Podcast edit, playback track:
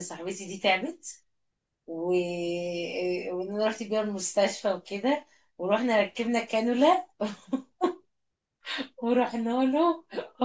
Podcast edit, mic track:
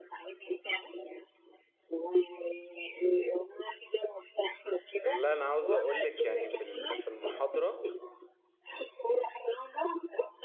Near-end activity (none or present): present